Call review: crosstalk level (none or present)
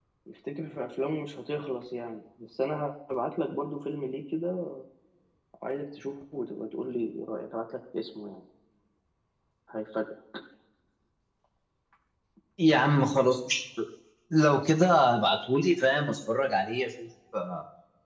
none